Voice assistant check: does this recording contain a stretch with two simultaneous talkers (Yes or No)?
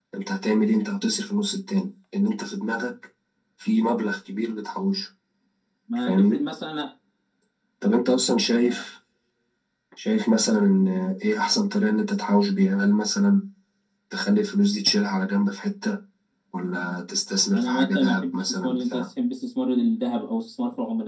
Yes